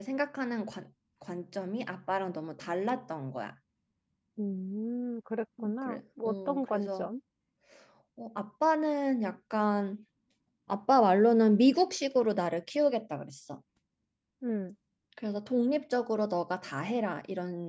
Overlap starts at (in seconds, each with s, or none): 5.6 s